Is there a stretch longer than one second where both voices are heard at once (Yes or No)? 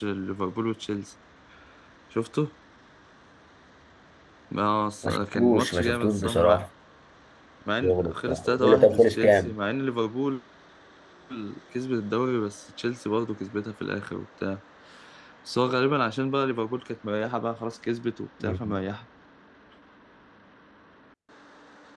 Yes